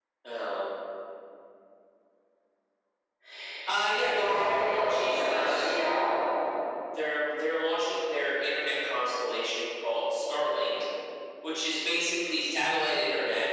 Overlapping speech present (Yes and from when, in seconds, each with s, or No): Yes, from 4.0 s